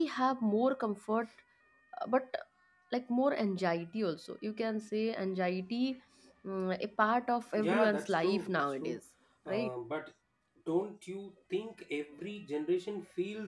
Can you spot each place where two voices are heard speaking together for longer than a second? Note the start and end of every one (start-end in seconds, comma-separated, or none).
7.6-9.0